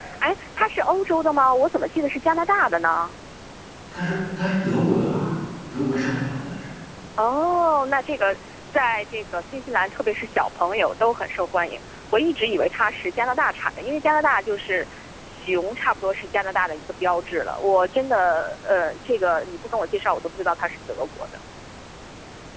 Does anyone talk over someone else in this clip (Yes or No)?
No